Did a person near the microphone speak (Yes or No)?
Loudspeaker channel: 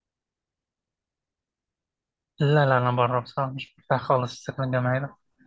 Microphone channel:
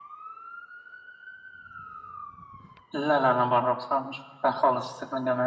No